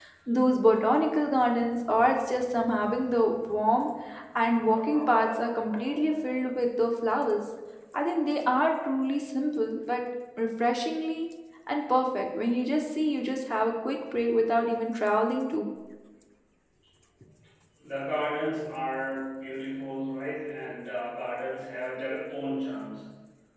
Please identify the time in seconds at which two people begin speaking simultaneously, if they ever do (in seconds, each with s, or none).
none